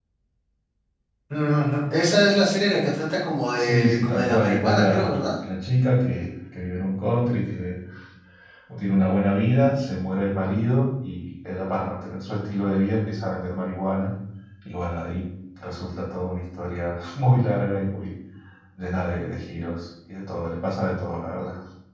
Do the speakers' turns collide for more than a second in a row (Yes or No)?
Yes